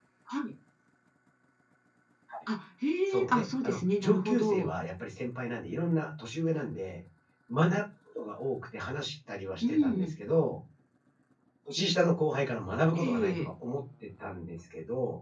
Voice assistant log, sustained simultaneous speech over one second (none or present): present